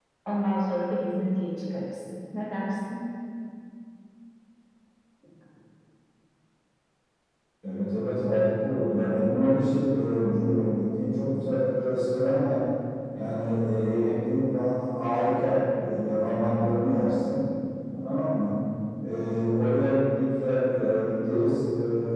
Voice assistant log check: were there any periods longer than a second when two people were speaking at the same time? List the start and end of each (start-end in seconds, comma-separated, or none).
none